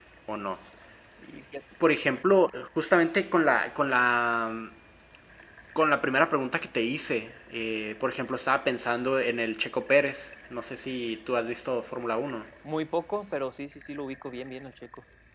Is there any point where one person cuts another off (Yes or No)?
No